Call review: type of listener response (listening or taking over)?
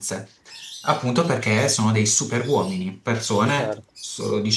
listening